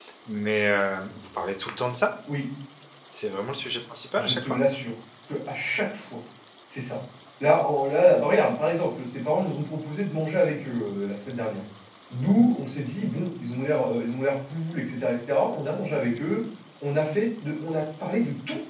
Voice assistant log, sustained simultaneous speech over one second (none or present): none